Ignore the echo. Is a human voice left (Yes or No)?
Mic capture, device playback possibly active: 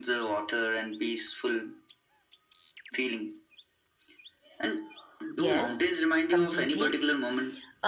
Yes